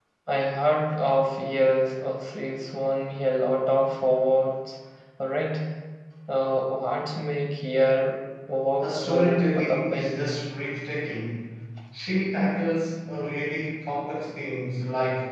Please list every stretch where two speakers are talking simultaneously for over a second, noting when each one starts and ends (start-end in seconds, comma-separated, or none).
8.8-10.3